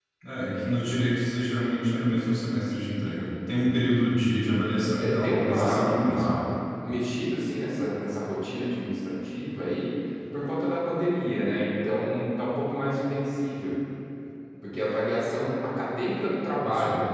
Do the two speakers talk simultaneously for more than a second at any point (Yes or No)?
Yes